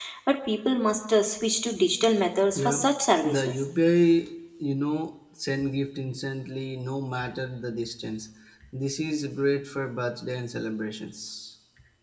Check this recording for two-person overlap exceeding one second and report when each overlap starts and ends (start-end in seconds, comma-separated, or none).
none